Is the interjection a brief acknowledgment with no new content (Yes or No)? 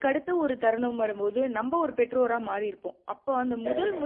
Yes